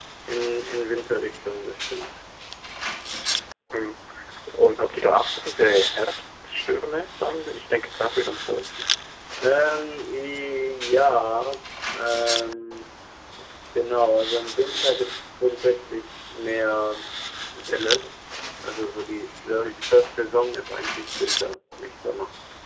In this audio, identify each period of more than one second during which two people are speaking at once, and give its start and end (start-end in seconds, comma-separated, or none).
none